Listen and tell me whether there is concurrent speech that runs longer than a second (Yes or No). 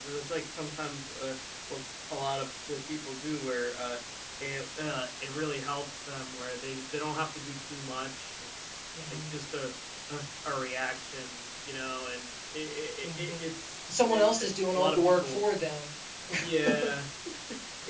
Yes